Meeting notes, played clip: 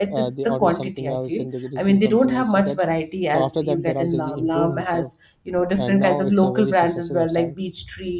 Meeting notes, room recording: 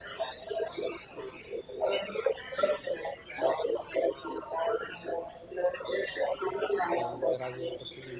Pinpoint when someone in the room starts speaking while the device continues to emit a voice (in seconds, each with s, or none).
6.9 s